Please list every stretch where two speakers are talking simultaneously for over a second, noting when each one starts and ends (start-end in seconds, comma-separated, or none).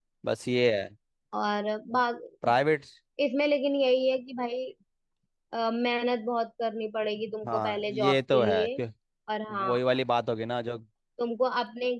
7.5-8.8